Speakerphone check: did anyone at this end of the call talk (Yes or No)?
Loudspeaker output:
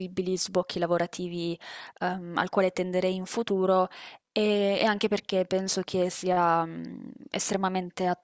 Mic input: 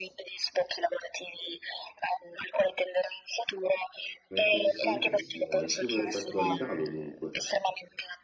Yes